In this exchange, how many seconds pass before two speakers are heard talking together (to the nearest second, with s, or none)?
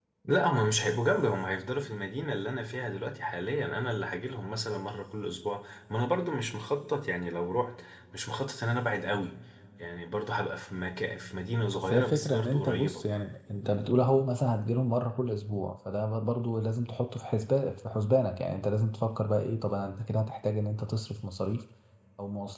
12 s